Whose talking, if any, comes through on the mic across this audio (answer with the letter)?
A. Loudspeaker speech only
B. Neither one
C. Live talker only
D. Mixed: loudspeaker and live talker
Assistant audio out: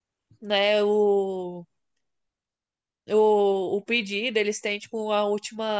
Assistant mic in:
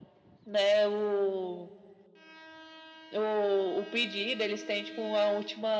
A